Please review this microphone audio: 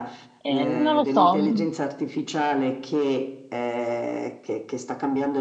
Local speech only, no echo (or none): Eh, non lo so, mm,